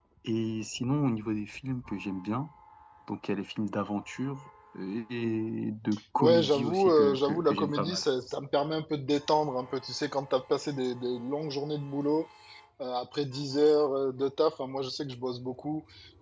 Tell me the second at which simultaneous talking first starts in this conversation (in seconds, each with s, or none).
6.2 s